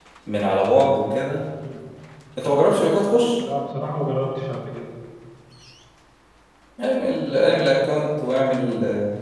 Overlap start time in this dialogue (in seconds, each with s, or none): none